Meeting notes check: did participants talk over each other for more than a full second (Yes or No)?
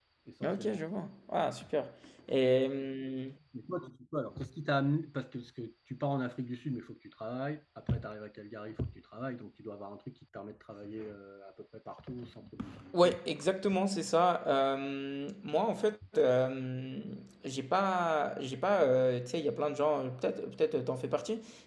No